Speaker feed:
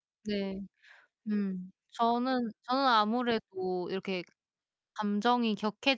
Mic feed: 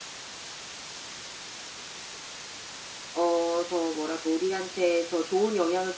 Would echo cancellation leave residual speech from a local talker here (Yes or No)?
Yes